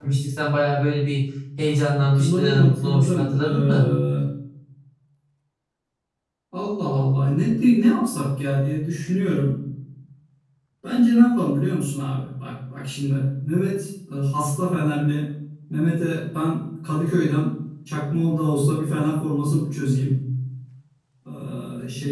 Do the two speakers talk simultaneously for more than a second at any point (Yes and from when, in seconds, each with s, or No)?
Yes, from 2.0 s